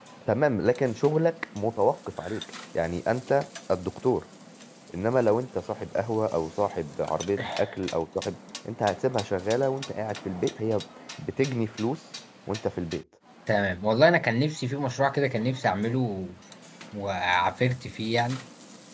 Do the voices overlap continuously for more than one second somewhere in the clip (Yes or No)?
No